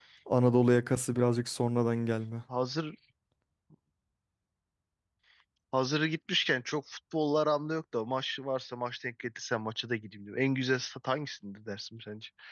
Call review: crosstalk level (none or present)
none